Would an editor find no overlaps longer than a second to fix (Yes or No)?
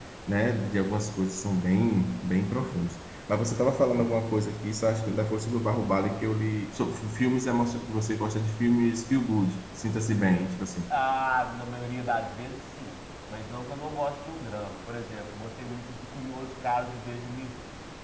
Yes